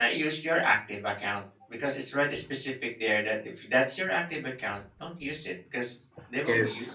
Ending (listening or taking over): listening